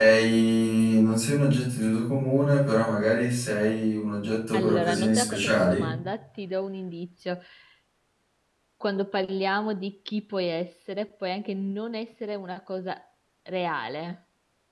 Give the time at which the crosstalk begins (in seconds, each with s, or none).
4.5 s